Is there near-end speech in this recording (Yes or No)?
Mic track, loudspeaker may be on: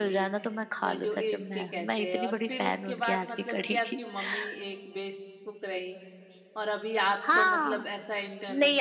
Yes